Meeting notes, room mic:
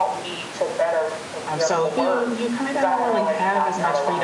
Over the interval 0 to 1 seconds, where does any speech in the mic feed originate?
echo only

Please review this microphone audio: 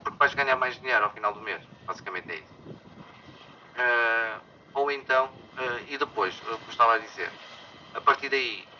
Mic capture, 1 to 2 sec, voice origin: echo only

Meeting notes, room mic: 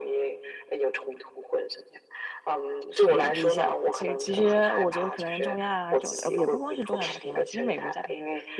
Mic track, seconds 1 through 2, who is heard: echo only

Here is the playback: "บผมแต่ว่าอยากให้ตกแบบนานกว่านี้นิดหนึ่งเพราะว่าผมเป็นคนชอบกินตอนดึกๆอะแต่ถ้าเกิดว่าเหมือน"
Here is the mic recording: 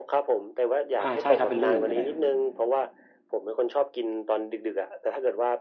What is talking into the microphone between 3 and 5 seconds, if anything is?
echo only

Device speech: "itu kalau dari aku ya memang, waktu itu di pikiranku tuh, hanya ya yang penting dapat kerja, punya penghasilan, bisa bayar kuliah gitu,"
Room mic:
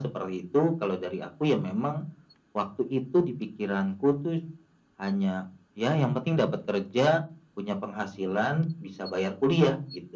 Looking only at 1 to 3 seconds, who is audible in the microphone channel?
echo only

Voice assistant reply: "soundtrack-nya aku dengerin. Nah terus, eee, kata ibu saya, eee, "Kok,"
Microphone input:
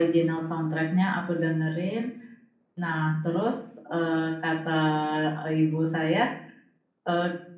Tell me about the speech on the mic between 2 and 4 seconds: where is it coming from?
echo only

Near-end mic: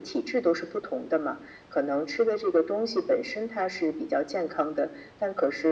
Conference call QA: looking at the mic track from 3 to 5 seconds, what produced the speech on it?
echo only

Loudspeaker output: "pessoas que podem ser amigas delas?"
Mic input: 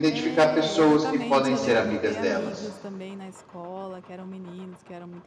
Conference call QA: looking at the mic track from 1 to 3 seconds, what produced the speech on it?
both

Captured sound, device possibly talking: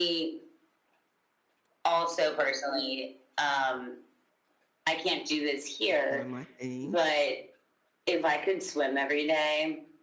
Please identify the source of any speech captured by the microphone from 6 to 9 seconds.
both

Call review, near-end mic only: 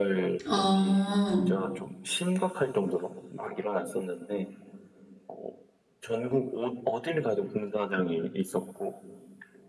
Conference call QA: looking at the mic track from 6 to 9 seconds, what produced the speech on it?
echo only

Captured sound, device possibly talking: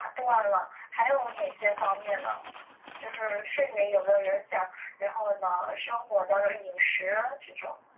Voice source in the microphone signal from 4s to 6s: echo only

